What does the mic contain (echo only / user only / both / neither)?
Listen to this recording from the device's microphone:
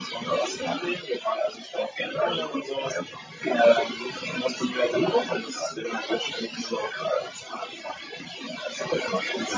echo only